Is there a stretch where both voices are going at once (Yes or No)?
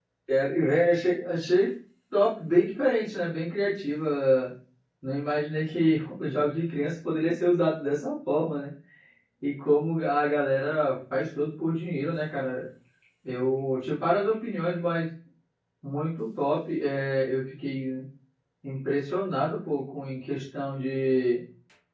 No